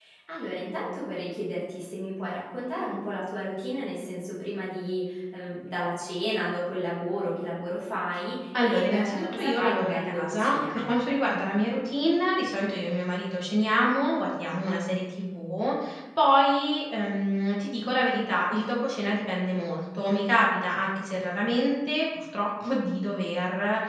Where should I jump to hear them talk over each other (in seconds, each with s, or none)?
8.5 s